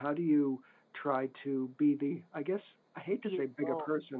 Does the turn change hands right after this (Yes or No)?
No